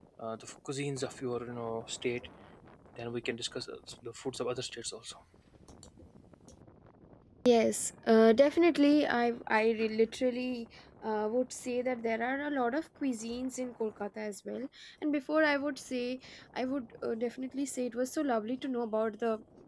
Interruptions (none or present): none